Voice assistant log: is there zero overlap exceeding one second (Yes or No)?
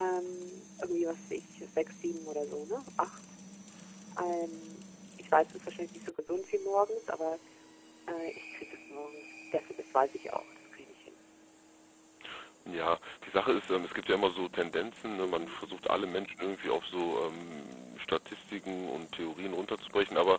Yes